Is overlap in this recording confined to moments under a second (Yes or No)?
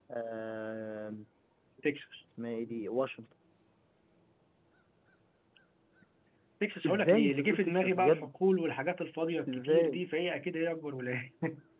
No